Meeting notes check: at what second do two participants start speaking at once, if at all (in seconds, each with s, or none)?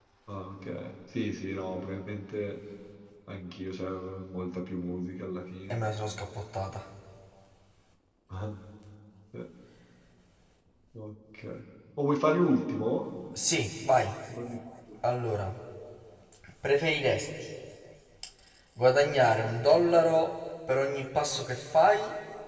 none